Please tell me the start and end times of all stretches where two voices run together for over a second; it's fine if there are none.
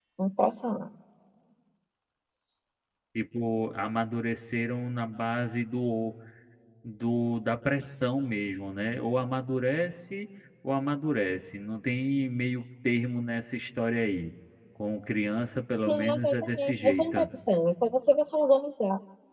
15.9-17.2

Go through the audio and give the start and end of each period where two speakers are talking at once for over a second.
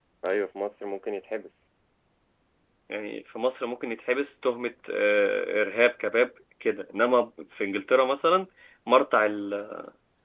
none

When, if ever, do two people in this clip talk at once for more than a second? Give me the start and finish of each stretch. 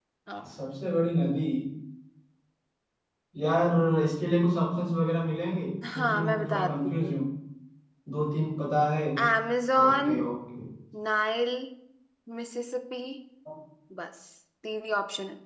5.9-7.1

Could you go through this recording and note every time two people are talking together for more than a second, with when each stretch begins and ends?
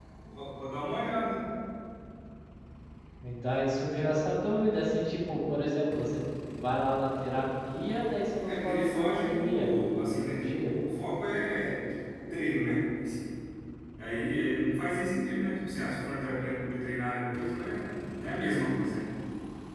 8.4-10.7

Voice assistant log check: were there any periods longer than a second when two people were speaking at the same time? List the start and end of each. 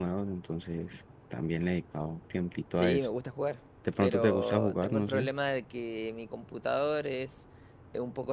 4.0-5.3

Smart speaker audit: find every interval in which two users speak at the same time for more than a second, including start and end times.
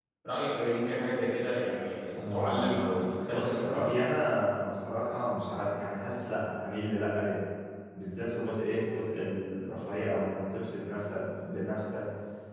2.1-3.9

